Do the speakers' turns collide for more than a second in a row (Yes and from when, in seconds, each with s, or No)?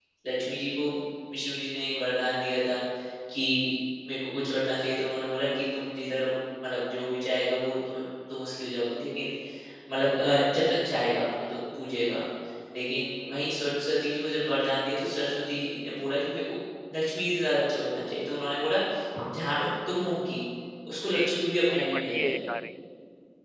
Yes, from 20.9 s